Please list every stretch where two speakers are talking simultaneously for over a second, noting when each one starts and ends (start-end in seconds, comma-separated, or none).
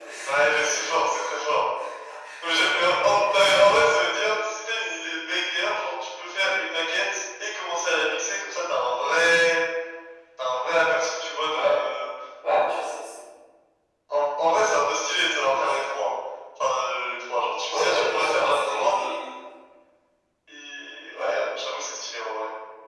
17.7-19.1